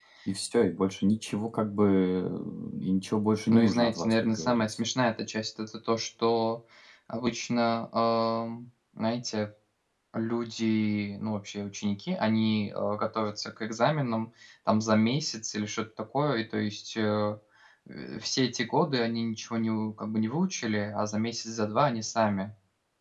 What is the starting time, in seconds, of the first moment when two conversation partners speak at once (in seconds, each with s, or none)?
3.5 s